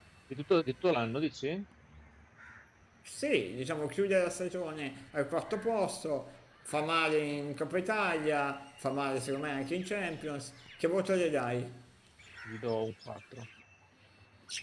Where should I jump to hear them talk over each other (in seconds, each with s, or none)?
none